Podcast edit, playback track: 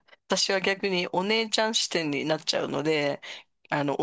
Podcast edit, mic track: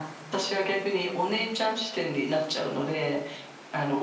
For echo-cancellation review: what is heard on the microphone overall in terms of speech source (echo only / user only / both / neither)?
echo only